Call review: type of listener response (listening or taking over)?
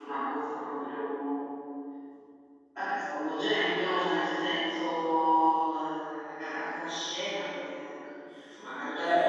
taking over